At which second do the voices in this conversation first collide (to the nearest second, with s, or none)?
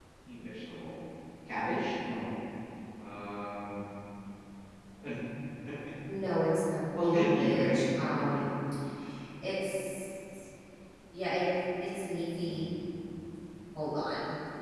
7 s